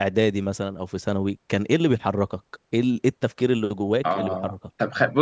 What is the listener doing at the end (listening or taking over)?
taking over